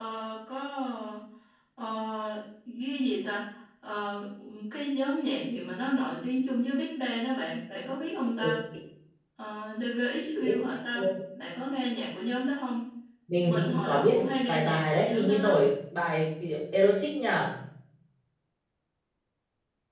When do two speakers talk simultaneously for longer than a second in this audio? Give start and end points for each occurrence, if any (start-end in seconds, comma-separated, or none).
13.5-15.6